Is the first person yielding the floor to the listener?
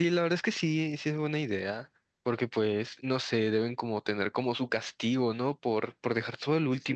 Yes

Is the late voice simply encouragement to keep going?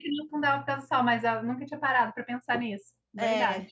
No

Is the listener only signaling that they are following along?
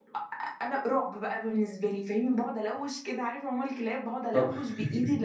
Yes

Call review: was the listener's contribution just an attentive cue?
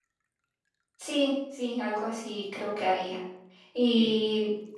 Yes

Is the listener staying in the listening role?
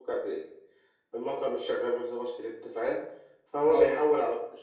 Yes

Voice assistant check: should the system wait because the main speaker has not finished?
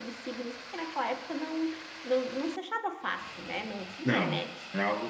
No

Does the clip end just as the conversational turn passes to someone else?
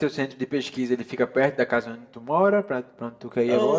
Yes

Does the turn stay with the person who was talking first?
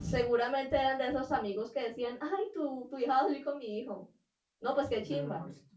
No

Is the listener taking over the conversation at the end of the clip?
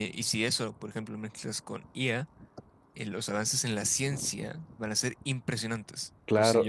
Yes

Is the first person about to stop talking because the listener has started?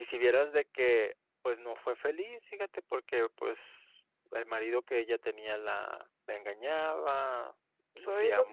Yes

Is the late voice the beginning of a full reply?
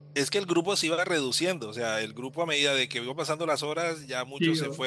No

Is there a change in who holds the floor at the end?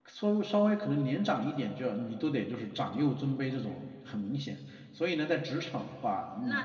Yes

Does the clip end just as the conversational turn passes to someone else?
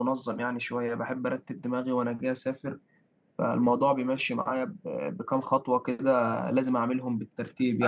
Yes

